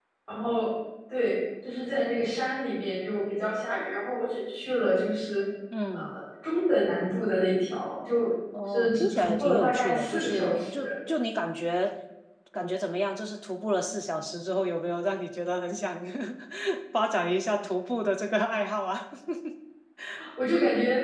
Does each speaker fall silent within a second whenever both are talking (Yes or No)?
No